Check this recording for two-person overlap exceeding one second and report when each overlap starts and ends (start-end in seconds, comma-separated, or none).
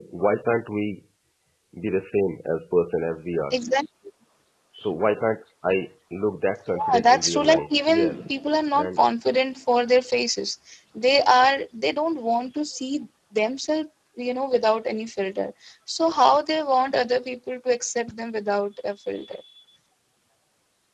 6.9-8.3